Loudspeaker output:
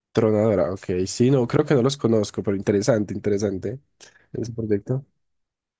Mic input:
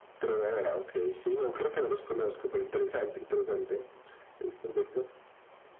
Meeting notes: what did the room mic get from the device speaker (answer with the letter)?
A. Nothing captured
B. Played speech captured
B